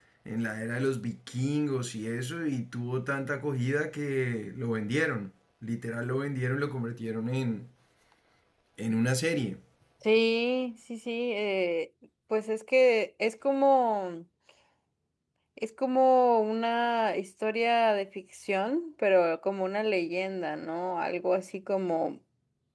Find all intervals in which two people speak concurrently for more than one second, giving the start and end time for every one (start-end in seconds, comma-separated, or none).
none